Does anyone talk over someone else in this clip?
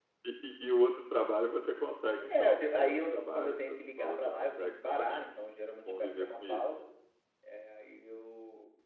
Yes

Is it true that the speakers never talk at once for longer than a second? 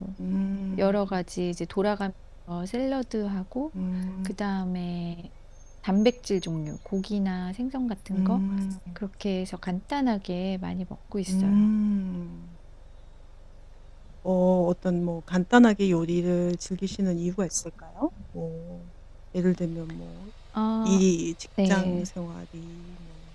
Yes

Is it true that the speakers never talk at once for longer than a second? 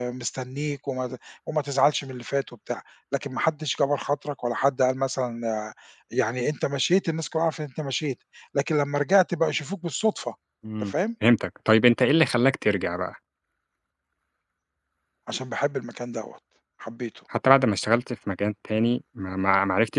Yes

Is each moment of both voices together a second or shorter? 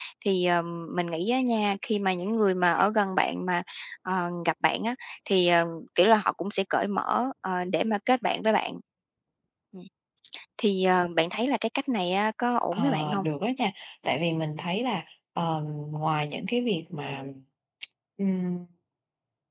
Yes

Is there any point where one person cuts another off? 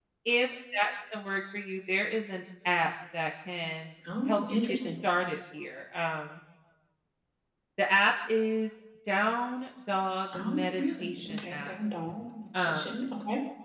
Yes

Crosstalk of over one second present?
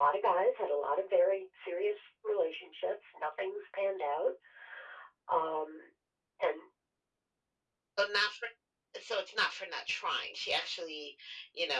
No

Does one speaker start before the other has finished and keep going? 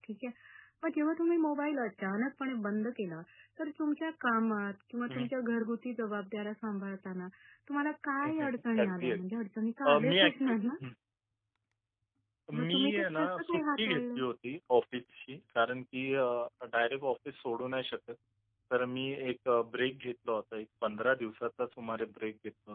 Yes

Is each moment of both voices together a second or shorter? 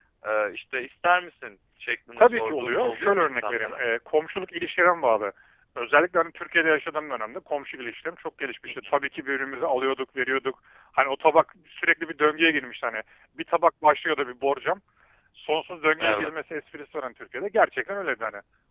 No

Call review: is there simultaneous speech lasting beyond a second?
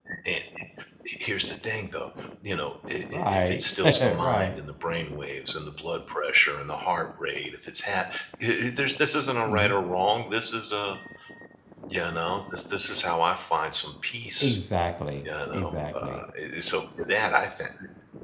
Yes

